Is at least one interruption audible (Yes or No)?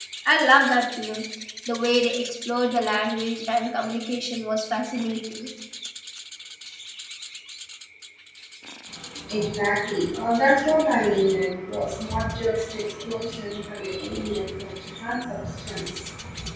No